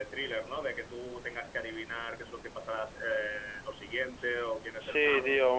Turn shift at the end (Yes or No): Yes